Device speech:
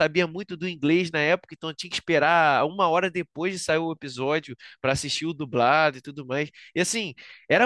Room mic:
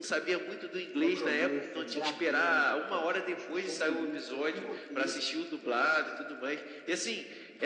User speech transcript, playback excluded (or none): necromancer, dragão, é, discussão política, que roteiro.